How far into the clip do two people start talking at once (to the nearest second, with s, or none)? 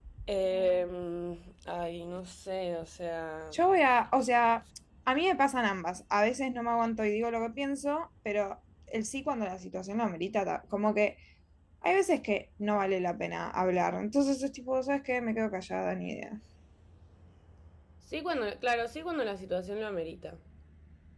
none